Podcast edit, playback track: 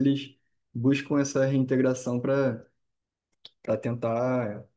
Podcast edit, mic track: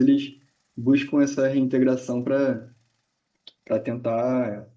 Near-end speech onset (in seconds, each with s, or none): none